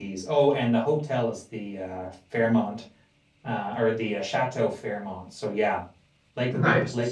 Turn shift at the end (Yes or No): No